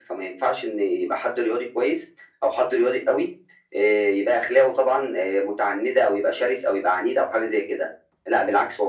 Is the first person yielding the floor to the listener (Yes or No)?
No